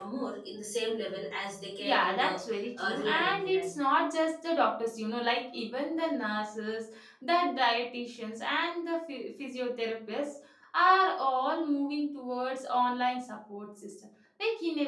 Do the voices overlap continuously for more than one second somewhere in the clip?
Yes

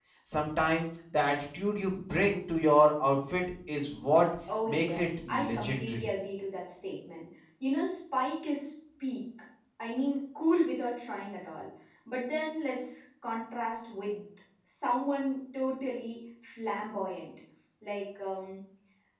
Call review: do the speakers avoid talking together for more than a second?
No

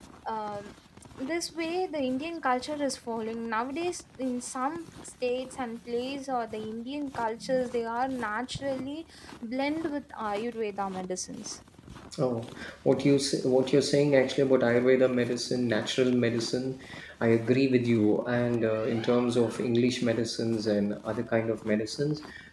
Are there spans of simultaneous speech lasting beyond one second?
No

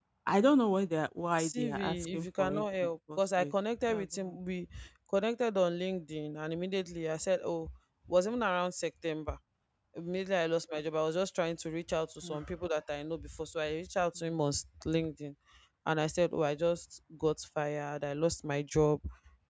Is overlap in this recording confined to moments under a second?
No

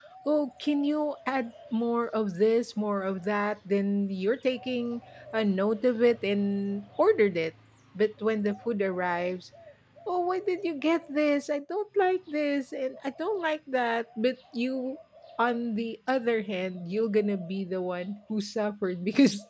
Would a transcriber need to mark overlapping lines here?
No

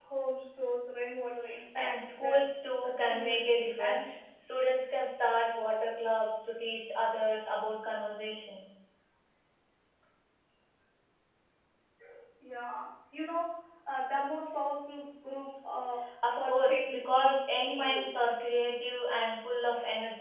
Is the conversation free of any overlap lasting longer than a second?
No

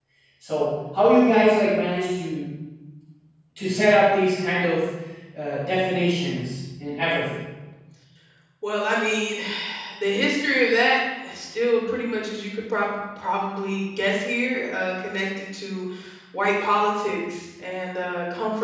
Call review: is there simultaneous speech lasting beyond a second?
No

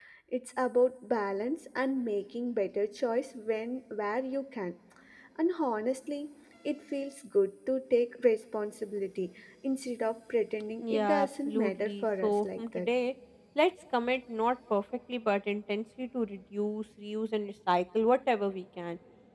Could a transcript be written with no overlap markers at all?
No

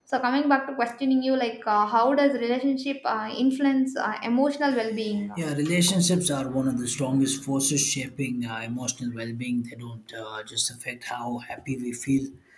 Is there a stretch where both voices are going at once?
No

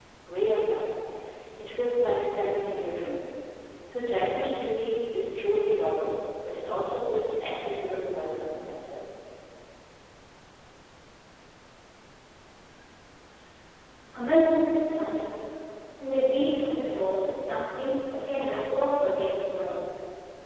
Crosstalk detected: No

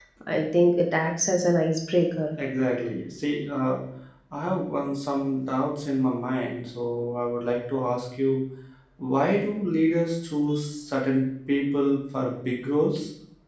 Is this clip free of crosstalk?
Yes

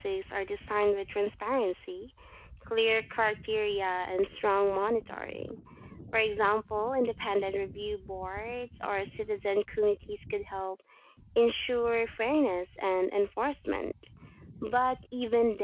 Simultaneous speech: No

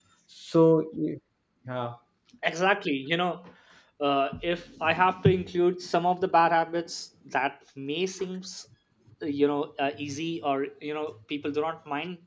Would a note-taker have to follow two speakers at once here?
No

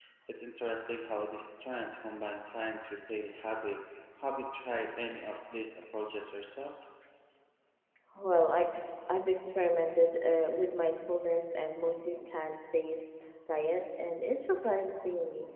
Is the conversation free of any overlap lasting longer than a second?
Yes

